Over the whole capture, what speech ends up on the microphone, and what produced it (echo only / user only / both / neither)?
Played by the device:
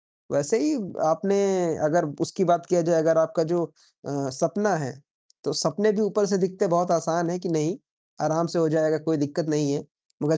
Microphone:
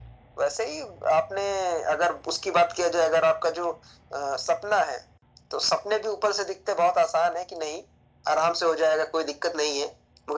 echo only